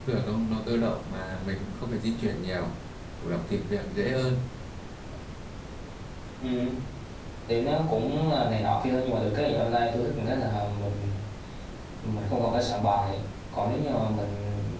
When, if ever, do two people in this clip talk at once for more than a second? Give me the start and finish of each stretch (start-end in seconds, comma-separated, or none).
none